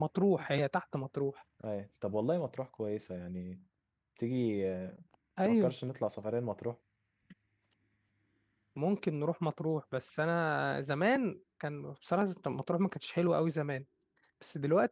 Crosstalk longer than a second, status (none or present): none